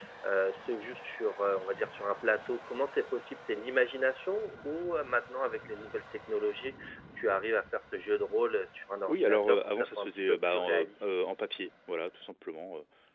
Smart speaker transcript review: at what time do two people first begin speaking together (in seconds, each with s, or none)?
9.1 s